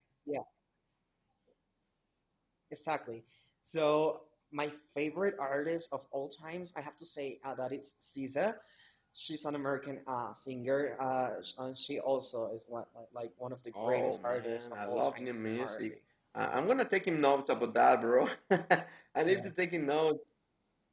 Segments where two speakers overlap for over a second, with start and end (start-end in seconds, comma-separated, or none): 13.8-15.9